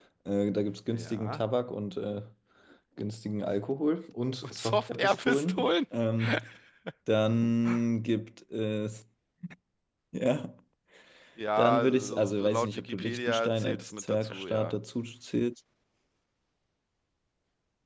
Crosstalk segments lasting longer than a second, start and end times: 4.4-5.7, 11.6-14.8

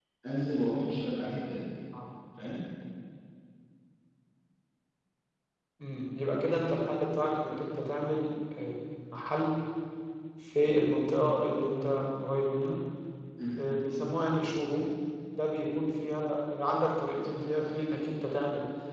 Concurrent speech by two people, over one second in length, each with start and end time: none

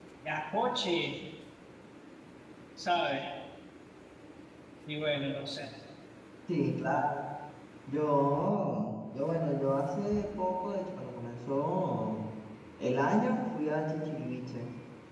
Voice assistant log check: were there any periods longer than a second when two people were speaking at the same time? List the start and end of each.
none

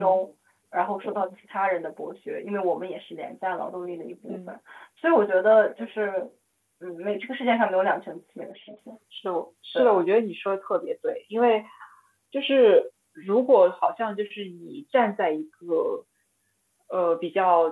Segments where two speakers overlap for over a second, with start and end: none

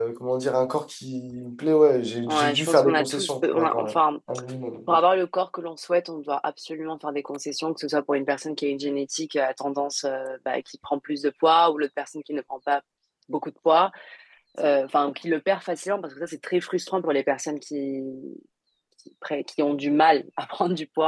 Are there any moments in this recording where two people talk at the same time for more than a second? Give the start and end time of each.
2.3-4.0

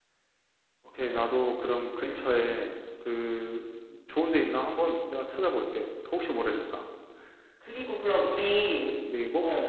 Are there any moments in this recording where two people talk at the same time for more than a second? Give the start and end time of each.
none

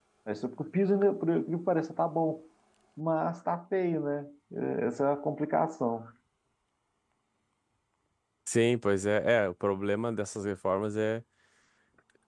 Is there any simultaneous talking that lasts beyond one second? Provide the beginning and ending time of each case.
none

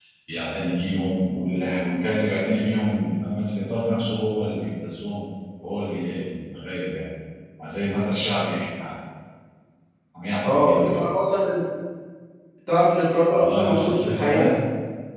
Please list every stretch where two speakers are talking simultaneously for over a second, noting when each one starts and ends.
13.3-14.5

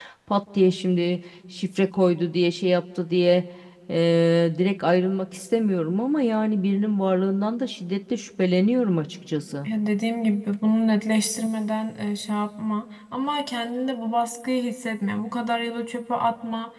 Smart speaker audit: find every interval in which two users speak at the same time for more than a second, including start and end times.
none

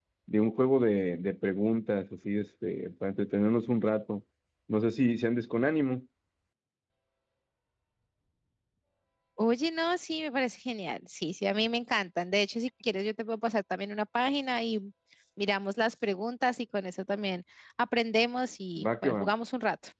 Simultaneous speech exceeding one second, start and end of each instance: none

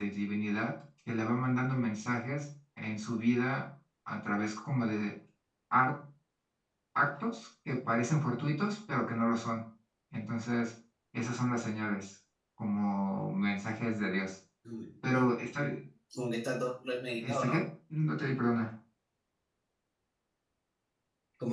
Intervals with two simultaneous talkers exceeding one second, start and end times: none

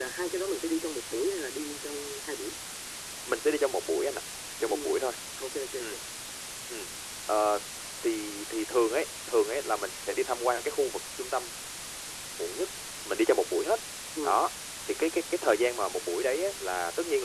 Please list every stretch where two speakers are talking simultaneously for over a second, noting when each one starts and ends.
none

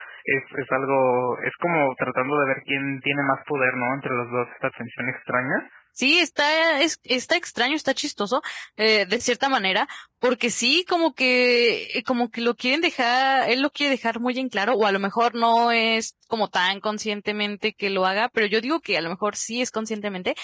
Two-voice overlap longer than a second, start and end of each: none

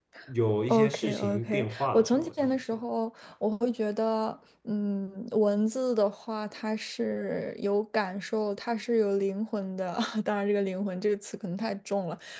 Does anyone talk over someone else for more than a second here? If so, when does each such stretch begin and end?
0.7-2.6

